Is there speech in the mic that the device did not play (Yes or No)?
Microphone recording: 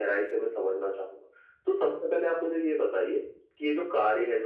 No